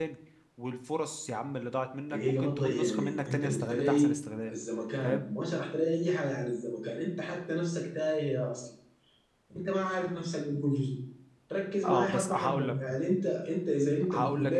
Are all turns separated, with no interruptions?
No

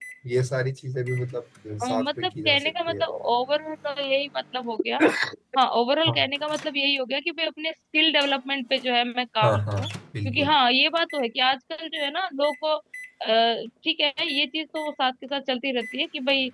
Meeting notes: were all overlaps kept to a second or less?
No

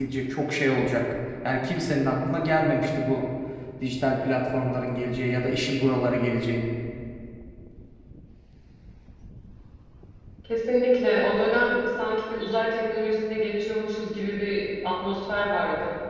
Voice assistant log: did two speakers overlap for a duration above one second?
No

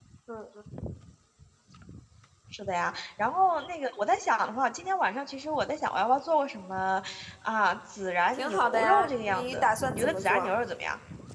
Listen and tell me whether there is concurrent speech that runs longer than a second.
Yes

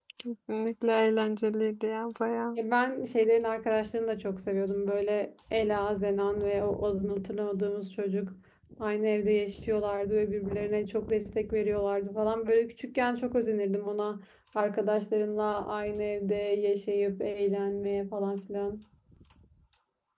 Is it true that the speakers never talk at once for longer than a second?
Yes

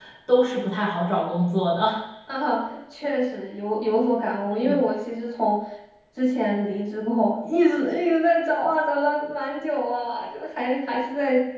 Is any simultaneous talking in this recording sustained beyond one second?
No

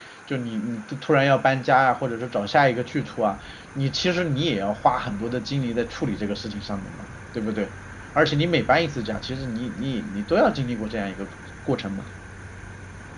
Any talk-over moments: No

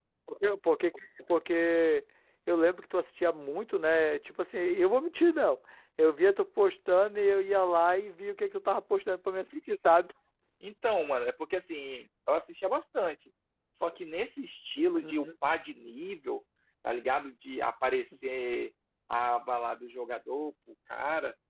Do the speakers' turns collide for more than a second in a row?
No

